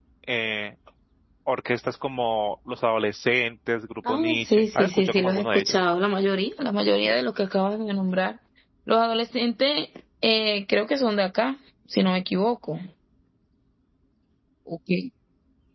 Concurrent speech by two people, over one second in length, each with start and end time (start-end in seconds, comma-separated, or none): 4.1-5.8